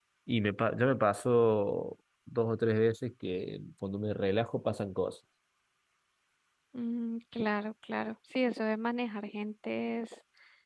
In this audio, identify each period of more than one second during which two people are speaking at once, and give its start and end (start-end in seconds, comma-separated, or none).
none